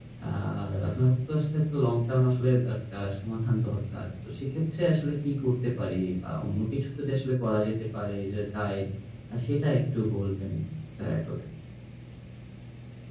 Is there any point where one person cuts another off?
No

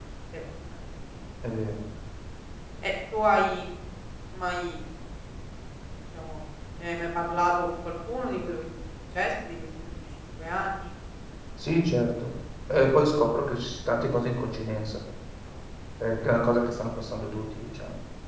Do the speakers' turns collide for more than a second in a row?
No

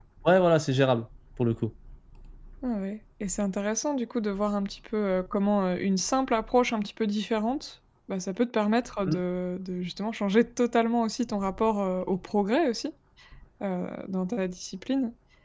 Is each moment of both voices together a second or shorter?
Yes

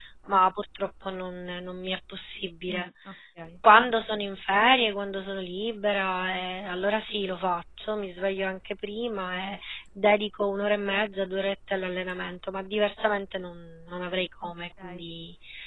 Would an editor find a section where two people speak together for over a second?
No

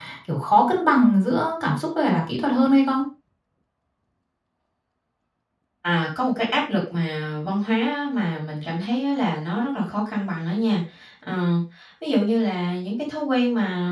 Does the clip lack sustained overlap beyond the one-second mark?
Yes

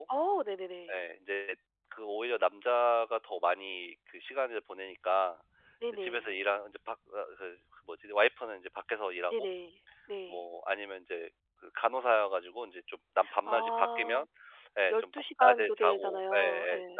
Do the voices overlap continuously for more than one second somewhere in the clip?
Yes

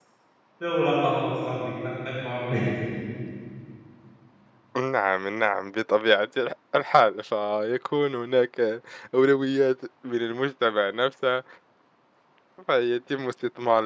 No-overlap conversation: Yes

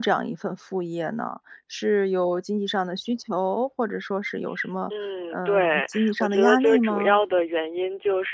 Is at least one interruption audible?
Yes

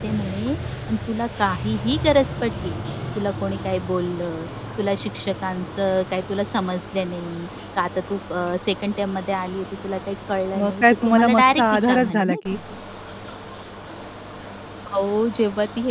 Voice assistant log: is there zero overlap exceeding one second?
No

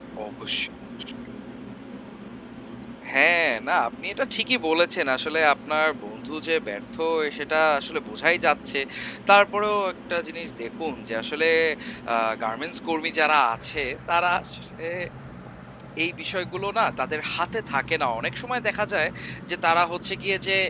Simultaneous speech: No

